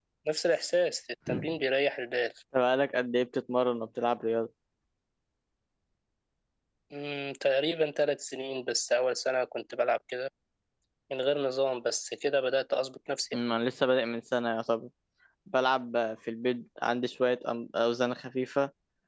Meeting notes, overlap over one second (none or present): none